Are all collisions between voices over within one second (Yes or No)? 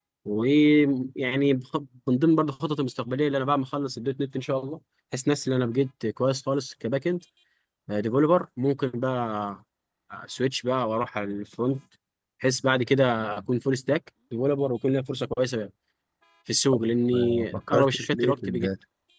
No